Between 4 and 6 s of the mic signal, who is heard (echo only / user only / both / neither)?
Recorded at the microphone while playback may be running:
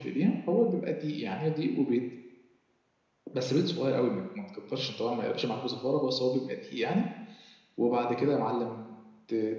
echo only